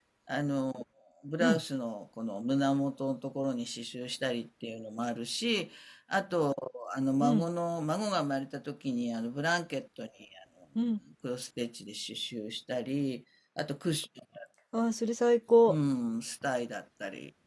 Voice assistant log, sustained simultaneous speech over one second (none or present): none